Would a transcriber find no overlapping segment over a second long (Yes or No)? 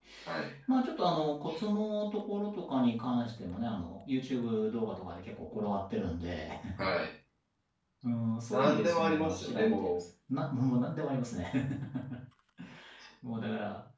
No